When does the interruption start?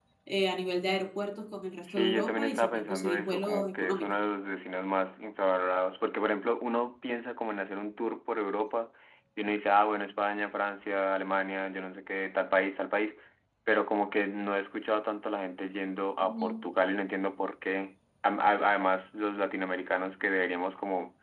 1.8 s

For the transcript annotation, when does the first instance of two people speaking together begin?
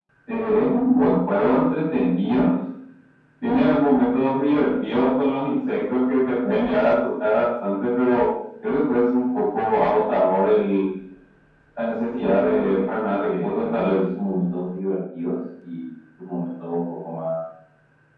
12.2 s

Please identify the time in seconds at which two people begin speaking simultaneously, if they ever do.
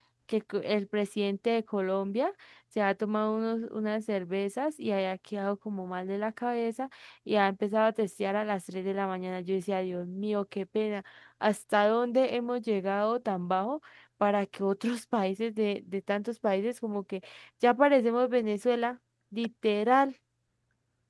none

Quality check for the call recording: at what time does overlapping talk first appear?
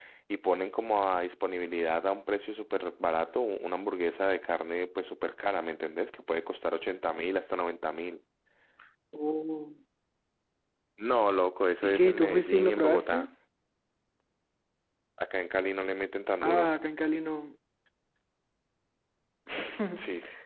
11.8 s

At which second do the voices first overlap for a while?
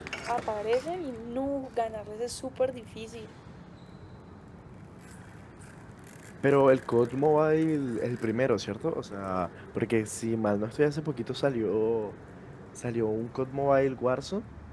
none

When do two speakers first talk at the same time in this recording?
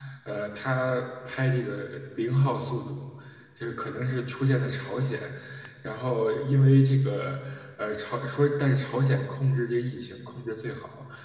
none

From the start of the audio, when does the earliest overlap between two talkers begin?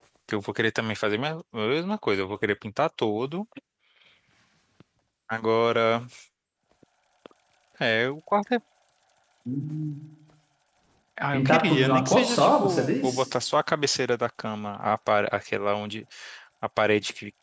11.3 s

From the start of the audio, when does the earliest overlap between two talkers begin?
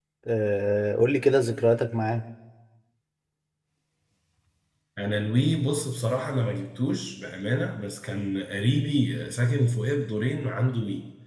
none

